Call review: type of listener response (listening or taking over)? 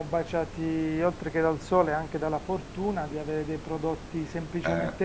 listening